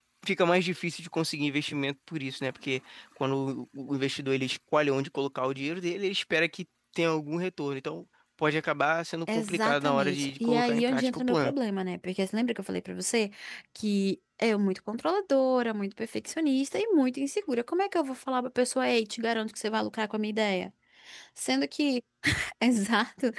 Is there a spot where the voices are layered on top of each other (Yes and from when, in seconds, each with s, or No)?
Yes, from 9.3 s